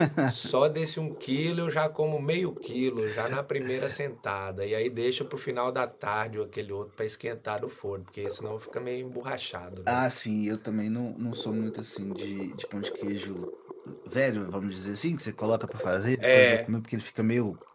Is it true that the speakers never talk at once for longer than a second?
Yes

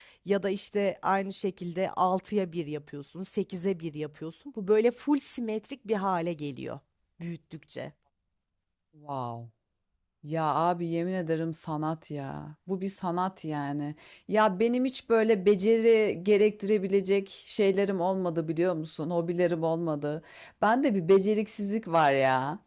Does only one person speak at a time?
Yes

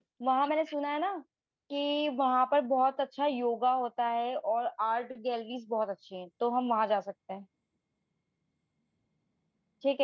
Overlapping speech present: No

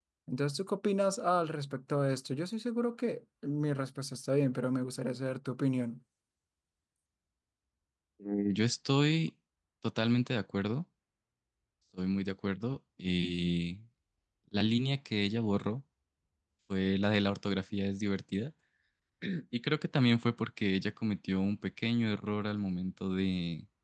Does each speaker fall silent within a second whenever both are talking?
Yes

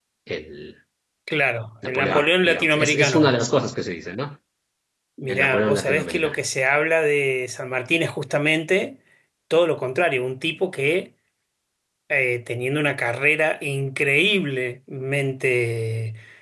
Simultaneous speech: Yes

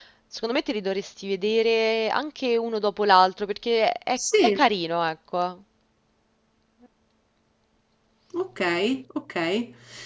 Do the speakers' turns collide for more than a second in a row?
No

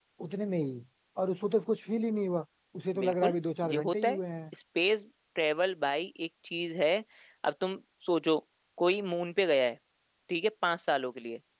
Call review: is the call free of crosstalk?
No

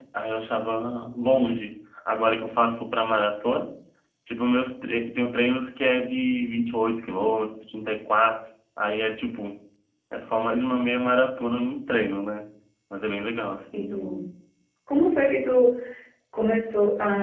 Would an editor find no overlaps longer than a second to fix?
Yes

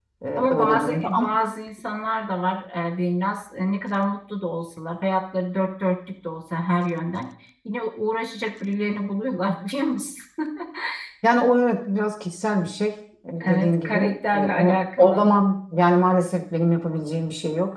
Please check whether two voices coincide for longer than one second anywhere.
Yes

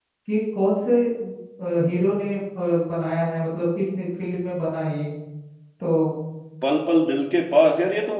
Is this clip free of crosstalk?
Yes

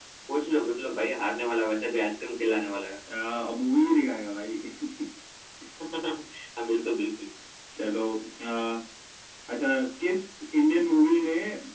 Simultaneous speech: No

